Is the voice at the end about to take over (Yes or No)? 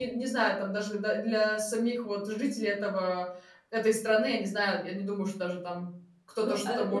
Yes